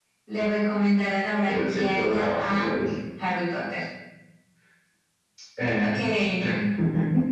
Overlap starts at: 1.5 s

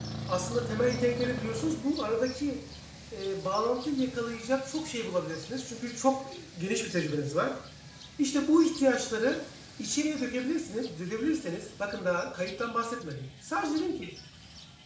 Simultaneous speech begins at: none

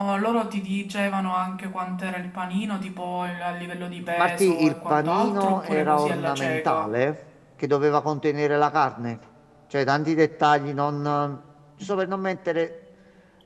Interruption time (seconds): 4.1 s

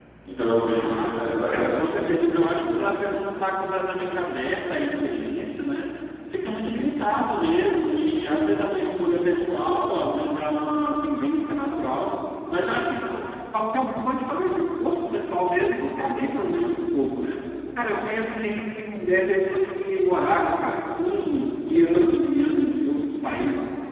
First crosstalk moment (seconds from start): 0.8 s

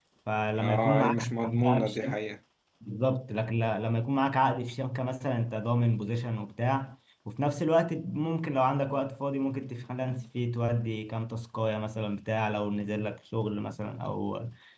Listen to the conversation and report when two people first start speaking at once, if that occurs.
0.6 s

